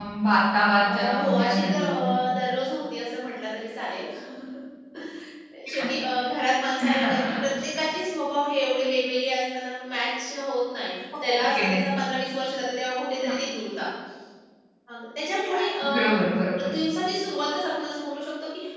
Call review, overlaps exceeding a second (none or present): present